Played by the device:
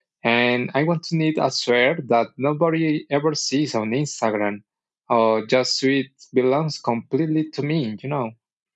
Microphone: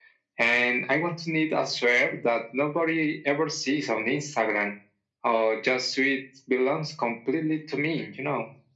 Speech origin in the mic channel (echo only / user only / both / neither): echo only